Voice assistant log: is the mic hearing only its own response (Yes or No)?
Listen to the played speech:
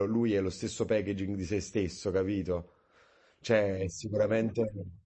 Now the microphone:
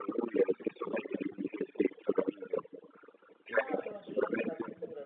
No